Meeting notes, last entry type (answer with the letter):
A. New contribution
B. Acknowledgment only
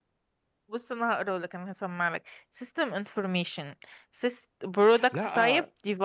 A